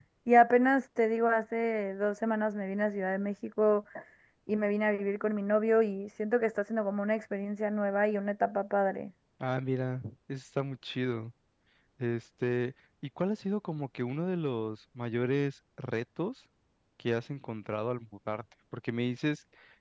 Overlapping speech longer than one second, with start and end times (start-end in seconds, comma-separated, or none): none